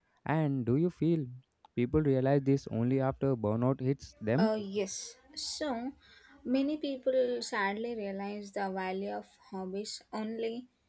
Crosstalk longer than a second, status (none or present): none